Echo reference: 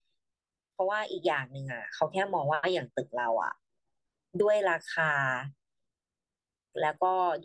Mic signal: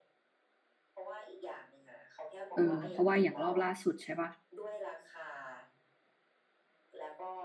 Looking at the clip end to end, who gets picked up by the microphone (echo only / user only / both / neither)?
both